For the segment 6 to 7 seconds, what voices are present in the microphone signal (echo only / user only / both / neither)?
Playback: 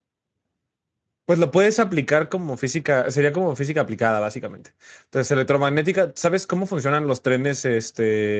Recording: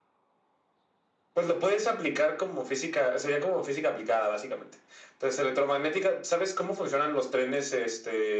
echo only